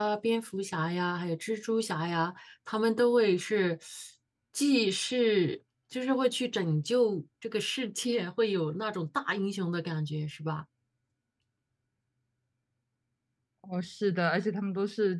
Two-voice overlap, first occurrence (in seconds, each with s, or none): none